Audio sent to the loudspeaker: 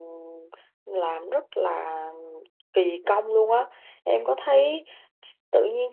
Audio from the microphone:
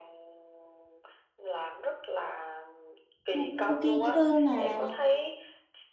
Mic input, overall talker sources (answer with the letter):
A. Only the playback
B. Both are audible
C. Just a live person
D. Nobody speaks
B